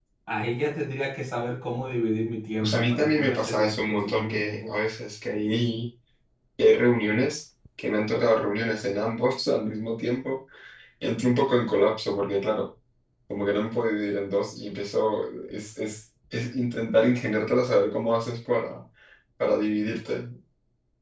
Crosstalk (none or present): present